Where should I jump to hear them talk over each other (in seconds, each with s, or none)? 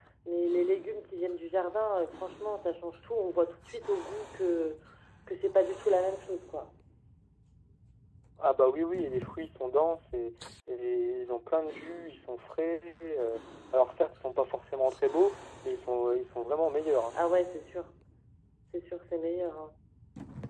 none